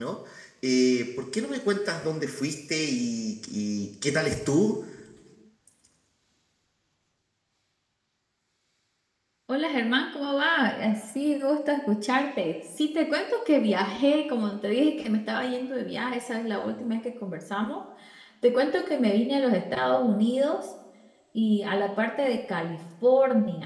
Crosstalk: none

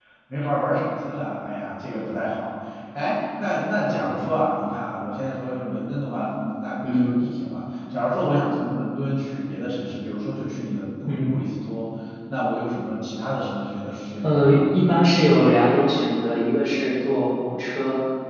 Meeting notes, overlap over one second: none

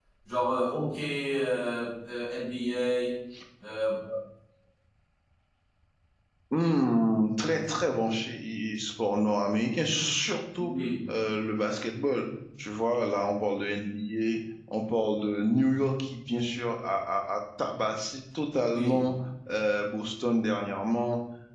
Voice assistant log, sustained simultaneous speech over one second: none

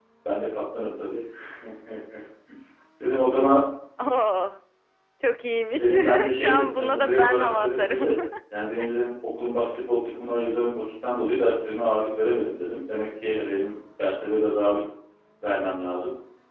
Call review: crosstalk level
present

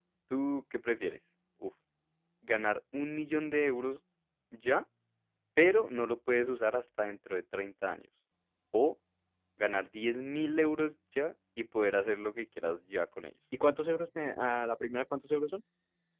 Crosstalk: none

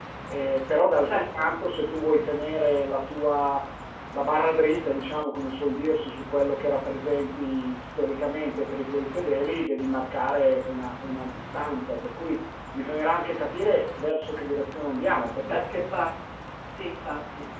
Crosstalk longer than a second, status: none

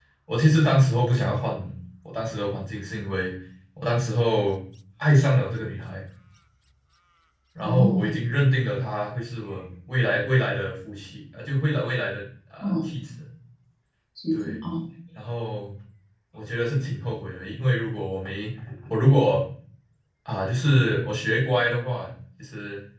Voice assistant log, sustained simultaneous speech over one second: none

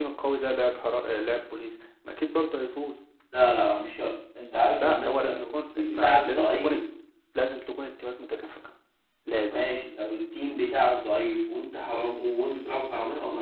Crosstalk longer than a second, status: present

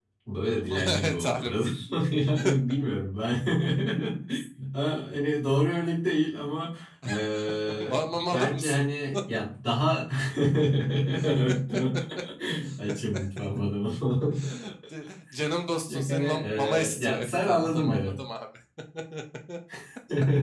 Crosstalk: present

